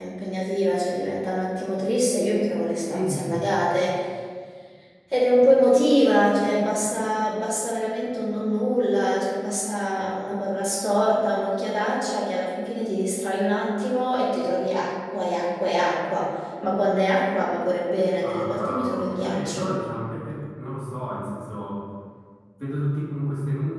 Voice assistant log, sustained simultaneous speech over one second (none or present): present